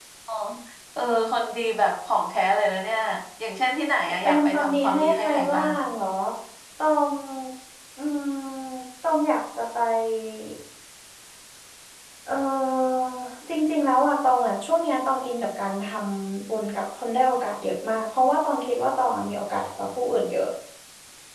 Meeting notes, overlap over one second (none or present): present